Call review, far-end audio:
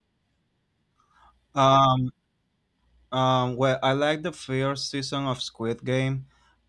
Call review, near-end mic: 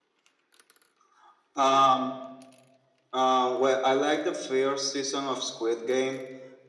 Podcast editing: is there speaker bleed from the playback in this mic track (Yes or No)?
Yes